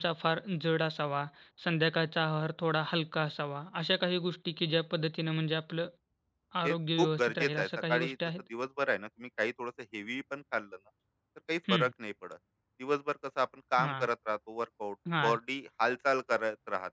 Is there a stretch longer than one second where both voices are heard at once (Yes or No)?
Yes